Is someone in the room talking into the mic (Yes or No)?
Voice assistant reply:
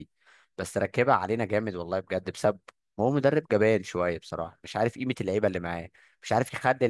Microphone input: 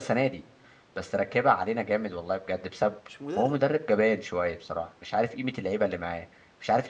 Yes